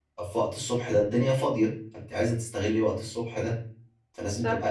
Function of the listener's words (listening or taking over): listening